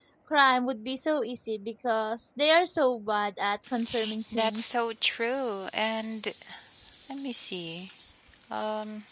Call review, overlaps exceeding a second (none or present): none